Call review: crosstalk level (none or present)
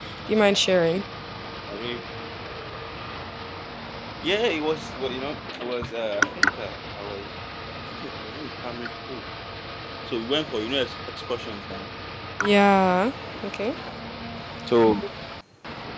none